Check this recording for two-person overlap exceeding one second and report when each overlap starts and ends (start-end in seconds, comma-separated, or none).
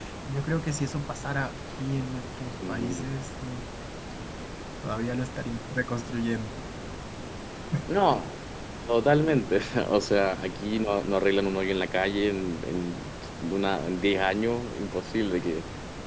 none